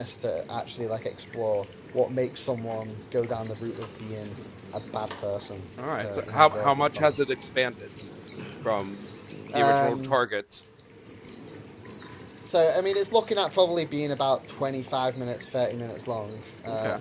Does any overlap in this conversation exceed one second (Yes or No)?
Yes